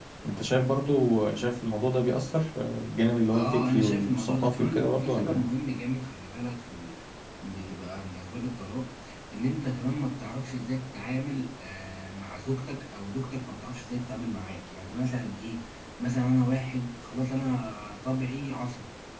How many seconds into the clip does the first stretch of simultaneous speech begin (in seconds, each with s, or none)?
3.3 s